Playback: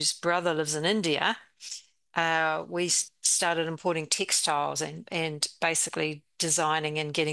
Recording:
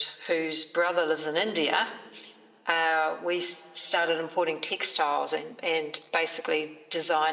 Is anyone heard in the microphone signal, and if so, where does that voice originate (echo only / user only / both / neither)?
echo only